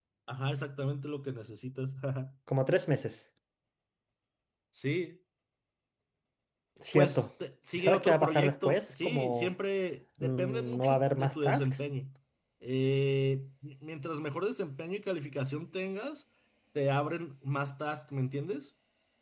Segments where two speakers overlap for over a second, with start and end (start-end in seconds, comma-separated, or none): 7.8-9.5, 10.2-11.8